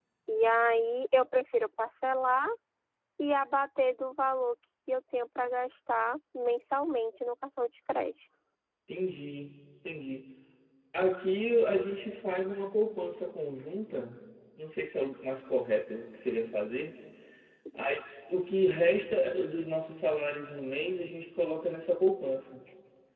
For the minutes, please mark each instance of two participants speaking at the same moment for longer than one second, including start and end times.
none

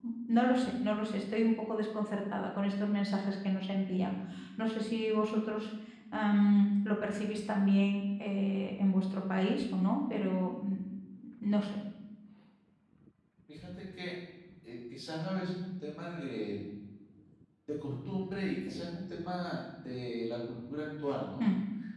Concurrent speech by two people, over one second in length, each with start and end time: none

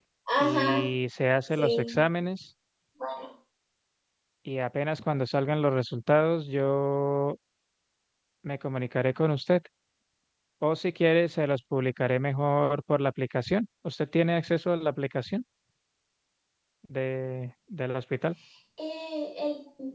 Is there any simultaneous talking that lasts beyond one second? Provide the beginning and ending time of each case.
none

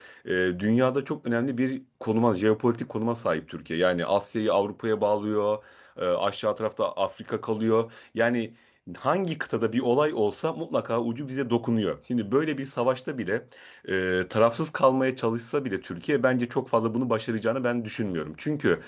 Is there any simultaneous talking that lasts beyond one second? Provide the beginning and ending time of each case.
none

